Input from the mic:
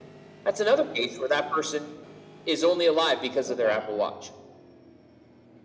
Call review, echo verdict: present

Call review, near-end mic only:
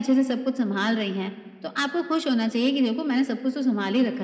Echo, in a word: present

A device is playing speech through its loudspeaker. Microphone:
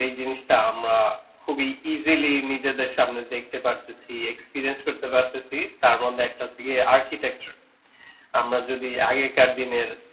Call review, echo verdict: none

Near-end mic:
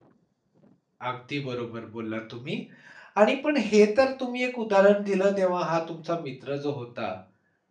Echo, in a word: none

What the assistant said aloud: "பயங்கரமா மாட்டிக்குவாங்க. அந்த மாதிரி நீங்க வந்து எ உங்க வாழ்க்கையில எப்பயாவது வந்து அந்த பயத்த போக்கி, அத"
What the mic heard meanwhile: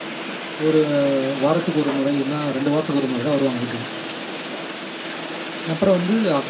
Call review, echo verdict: none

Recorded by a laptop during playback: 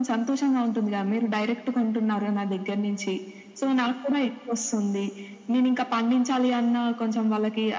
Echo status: present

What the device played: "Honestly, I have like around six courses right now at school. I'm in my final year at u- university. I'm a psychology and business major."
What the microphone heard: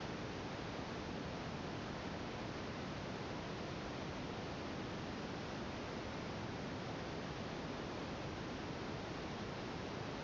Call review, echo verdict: none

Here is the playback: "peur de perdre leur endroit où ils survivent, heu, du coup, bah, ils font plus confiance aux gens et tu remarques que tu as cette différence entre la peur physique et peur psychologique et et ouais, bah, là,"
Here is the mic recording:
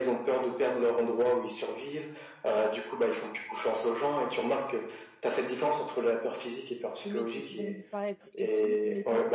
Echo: present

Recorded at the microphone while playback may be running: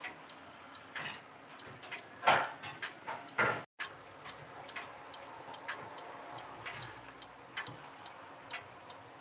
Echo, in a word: none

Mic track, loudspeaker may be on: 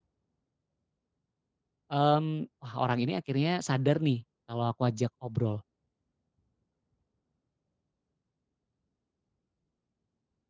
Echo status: none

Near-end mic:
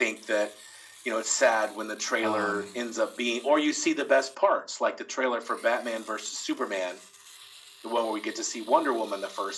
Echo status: present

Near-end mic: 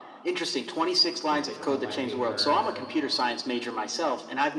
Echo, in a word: present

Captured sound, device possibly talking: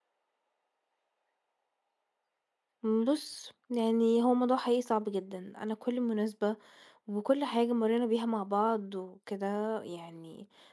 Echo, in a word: none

